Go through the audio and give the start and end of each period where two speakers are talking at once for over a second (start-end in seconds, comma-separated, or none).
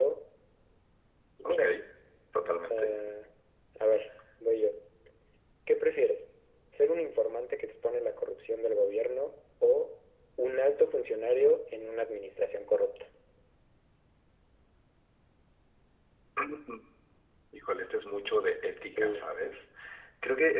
none